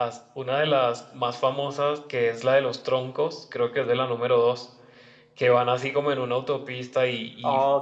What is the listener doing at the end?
listening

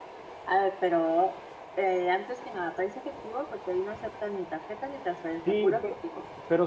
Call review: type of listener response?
taking over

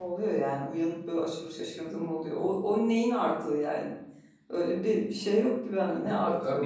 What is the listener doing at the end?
taking over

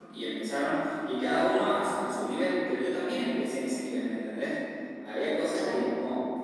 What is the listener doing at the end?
listening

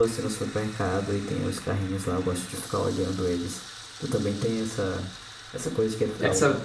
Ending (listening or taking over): listening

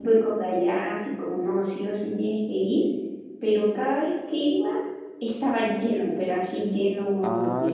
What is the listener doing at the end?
taking over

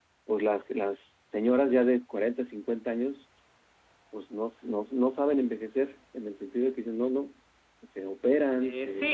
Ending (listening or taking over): taking over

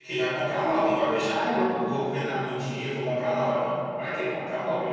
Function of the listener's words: taking over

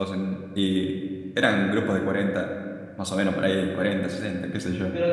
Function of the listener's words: taking over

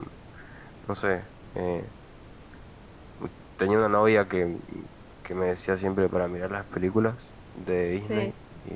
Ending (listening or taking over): listening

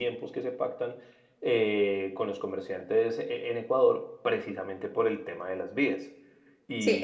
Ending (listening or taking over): taking over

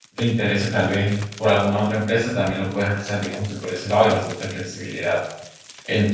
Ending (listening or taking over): listening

